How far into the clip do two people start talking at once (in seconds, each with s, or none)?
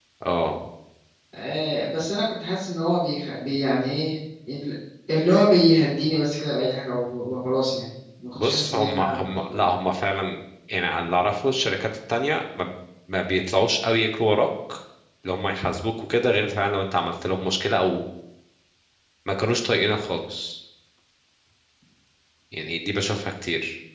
8.4 s